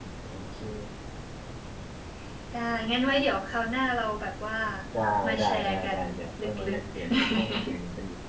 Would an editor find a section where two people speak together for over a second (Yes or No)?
Yes